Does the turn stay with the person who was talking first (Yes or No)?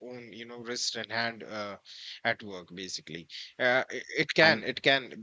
Yes